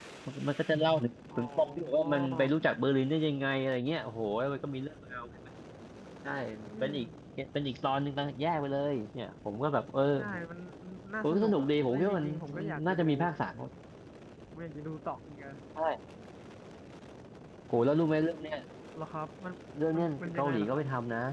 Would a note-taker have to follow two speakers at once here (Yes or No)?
Yes